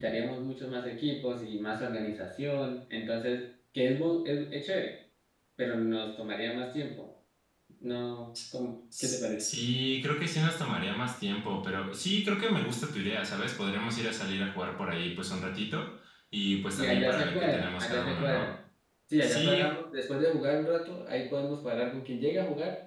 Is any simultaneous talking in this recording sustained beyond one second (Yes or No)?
Yes